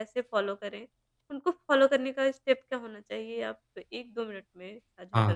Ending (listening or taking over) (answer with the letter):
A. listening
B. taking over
B